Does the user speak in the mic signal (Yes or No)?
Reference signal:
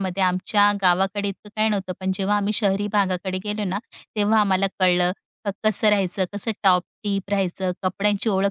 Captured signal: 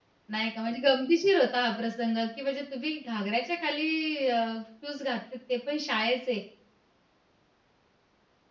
Yes